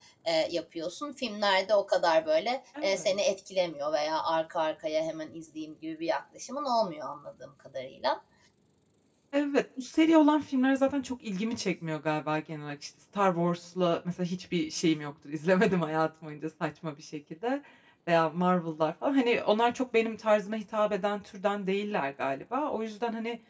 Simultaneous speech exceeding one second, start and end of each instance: none

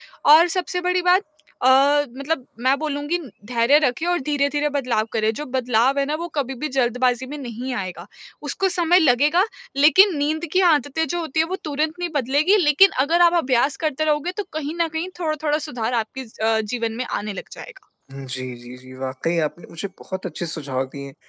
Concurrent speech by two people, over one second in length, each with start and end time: none

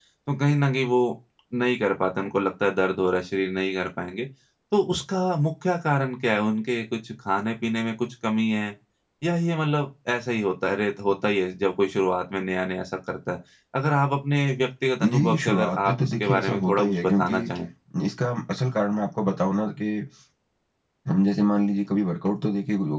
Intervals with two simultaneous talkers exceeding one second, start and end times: 15.0-17.4

